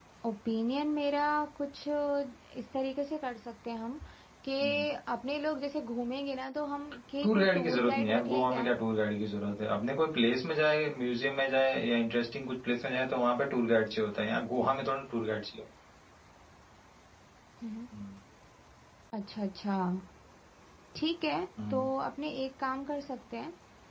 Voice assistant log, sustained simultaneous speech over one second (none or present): present